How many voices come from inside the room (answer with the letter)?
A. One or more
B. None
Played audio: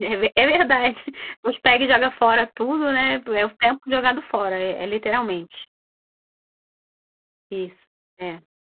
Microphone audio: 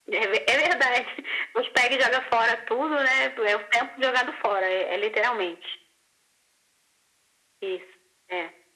B